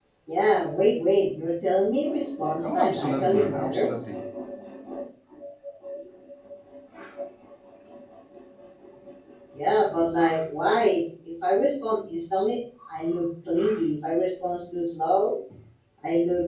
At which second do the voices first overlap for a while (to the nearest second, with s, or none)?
3 s